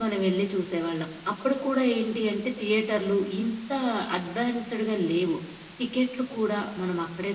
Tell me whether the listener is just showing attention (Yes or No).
Yes